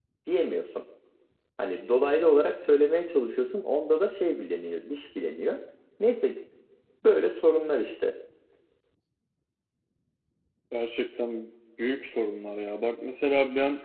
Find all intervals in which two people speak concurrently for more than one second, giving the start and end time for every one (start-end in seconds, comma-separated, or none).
none